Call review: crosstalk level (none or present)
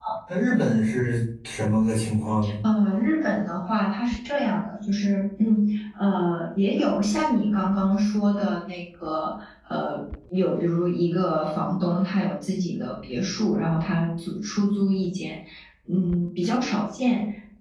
none